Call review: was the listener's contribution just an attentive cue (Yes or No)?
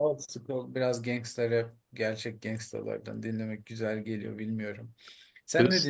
No